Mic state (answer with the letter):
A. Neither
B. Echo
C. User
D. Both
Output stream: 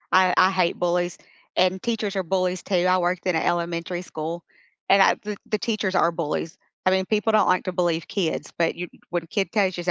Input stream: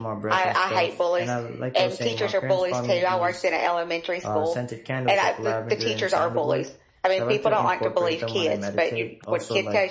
D